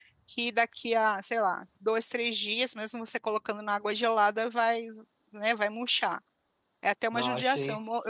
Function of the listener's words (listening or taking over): listening